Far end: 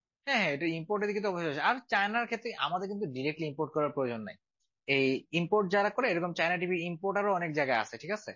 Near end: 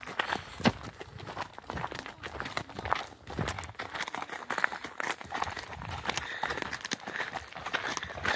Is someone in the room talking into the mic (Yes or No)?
No